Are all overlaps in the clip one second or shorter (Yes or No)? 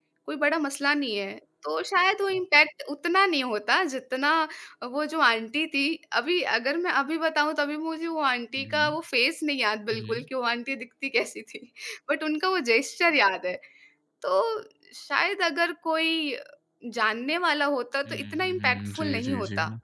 No